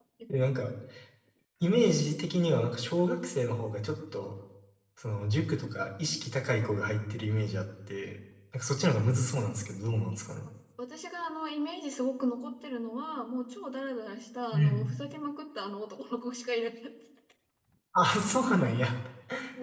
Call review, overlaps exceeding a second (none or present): none